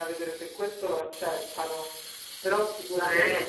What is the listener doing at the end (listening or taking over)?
listening